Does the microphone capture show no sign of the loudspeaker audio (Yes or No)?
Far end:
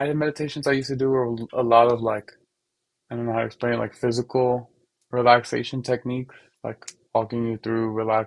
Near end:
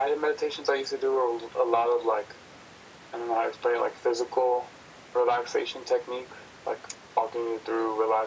No